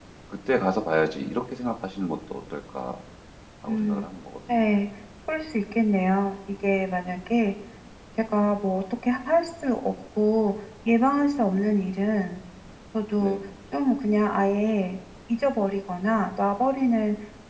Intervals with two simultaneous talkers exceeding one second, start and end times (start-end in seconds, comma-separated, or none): none